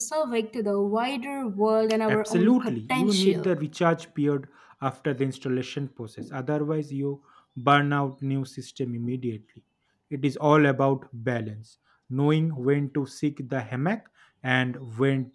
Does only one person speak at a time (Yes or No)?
No